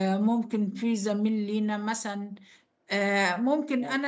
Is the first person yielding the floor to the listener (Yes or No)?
No